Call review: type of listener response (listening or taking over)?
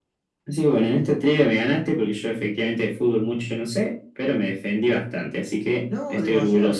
taking over